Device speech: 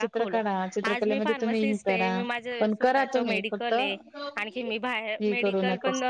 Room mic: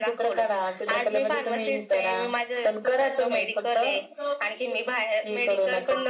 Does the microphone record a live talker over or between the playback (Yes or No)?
No